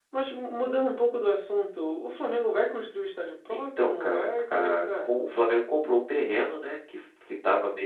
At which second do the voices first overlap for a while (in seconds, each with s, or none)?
3.5 s